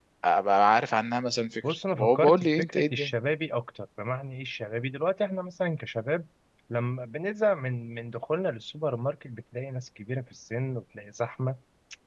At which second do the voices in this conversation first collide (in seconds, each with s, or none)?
1.9 s